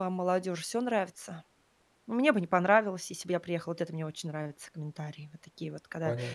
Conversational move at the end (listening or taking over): taking over